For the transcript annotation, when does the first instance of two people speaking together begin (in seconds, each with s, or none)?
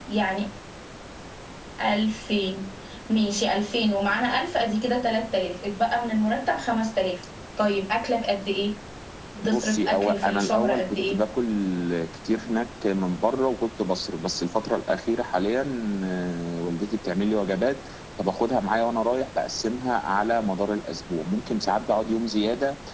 9.5 s